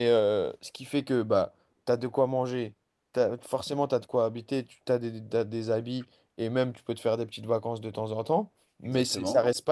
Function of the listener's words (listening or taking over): listening